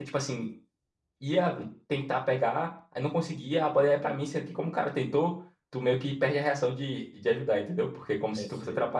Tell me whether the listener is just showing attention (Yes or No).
Yes